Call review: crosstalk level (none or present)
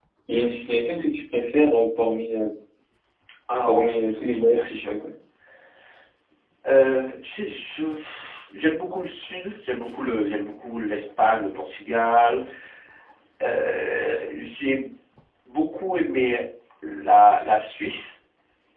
present